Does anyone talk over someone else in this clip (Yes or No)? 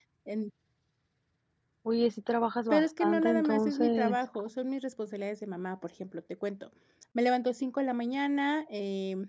Yes